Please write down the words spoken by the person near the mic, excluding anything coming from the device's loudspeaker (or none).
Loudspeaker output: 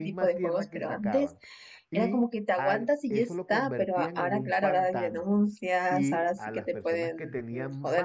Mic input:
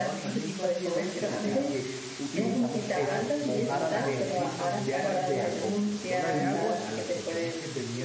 fecha en que utilizamos eso, mojar a la gente, ya sea con pistola de agua